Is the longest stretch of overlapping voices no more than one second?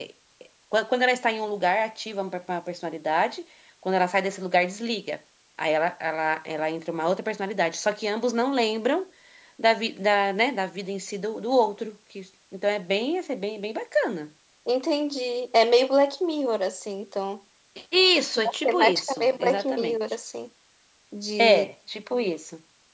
No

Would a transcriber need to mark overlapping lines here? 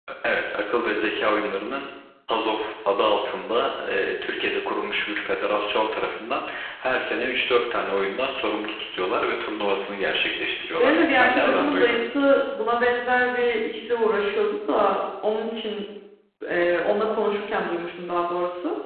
Yes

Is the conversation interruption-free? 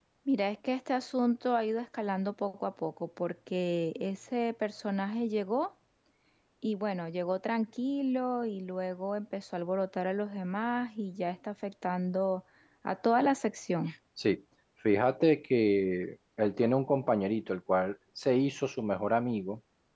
Yes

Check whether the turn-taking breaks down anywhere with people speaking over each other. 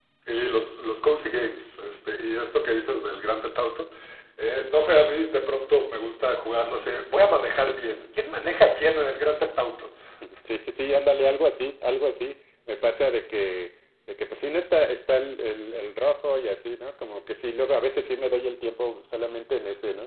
No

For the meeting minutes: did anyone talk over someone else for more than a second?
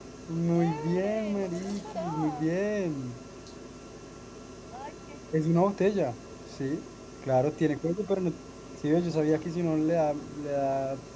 Yes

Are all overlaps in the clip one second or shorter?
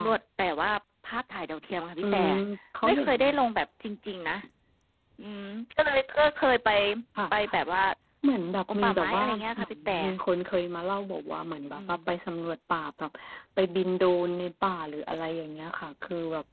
No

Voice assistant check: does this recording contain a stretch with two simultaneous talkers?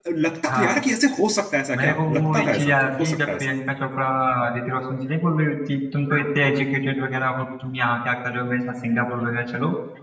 Yes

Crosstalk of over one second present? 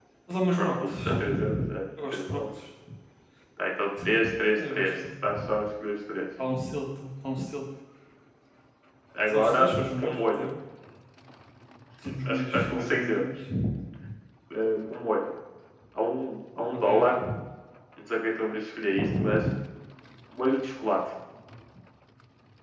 Yes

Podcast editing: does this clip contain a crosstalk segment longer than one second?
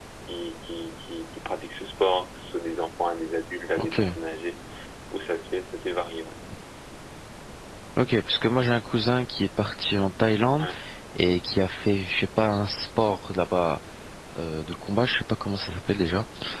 No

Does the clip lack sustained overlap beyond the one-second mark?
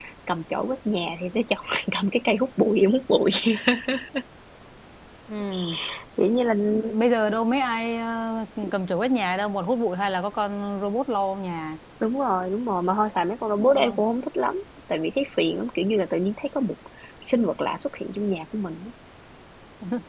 Yes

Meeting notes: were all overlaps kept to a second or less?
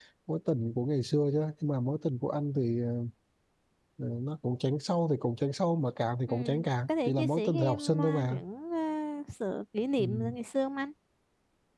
No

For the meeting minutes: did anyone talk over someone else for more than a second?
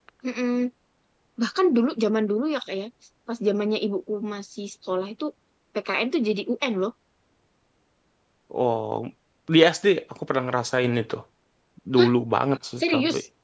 No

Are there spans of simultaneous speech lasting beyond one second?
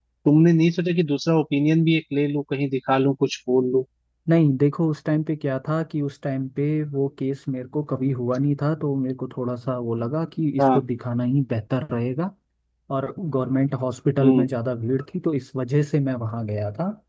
No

